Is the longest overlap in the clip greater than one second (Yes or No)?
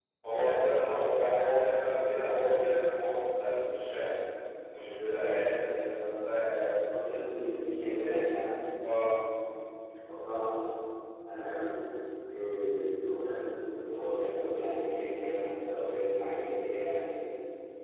No